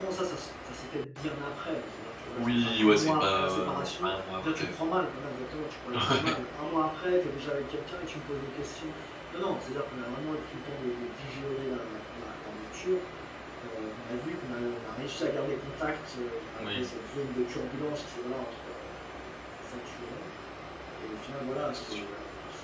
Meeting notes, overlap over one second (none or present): present